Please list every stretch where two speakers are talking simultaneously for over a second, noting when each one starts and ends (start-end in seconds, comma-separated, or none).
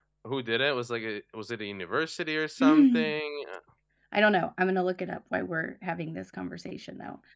none